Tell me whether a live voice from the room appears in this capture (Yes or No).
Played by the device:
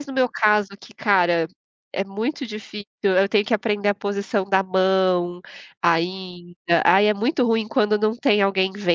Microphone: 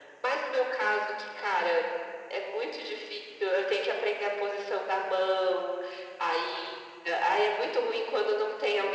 No